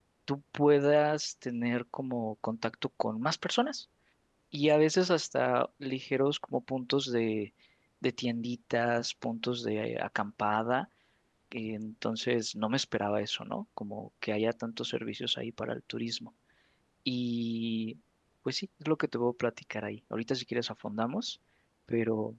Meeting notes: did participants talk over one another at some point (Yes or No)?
No